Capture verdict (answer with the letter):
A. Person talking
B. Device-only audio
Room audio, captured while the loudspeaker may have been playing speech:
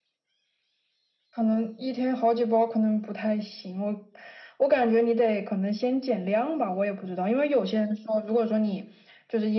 B